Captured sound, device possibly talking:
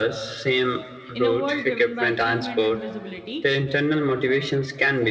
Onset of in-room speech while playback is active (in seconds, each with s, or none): 1.1 s